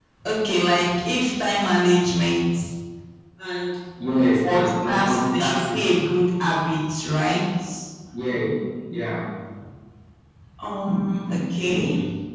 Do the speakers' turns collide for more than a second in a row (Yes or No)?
Yes